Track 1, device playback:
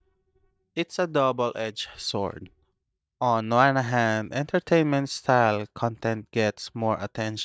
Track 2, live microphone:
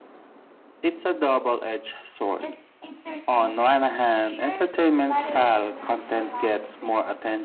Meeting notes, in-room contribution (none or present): present